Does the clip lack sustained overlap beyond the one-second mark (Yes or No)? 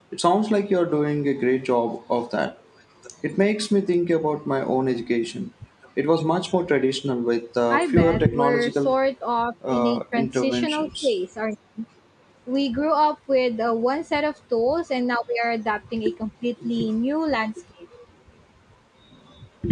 No